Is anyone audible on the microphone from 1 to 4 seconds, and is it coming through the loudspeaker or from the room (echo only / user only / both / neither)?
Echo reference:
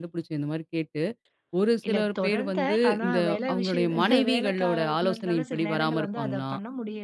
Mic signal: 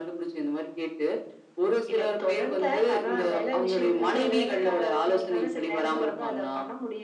echo only